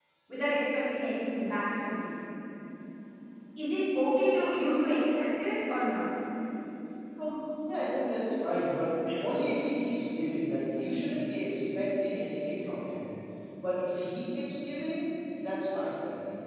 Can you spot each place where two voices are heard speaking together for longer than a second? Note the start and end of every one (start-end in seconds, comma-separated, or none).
none